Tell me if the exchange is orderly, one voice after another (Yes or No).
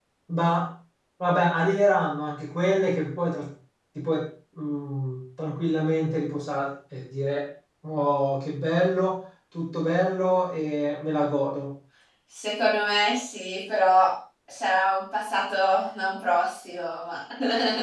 Yes